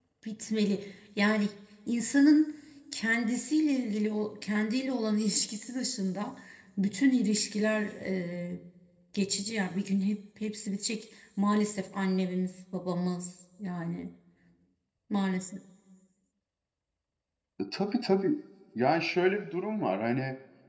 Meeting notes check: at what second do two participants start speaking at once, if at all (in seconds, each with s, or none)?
none